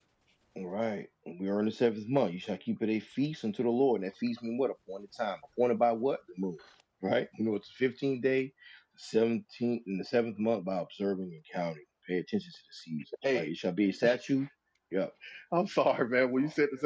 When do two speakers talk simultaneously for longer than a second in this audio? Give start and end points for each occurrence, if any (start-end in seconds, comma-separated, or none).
none